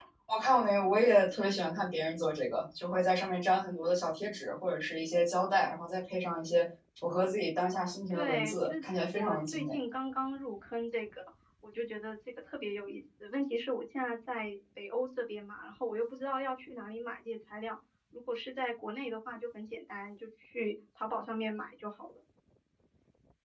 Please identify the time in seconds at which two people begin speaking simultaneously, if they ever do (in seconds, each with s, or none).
8.1 s